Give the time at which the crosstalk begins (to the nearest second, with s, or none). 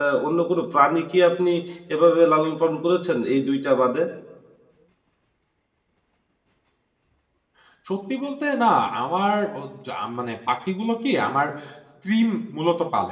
none